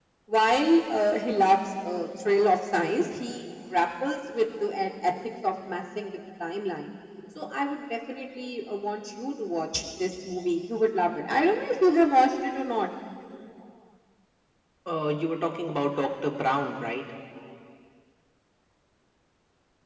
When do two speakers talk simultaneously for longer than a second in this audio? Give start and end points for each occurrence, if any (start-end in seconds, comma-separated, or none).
none